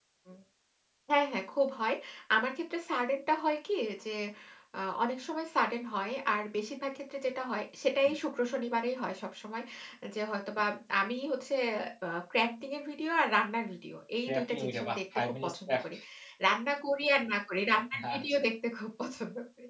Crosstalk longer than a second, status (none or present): present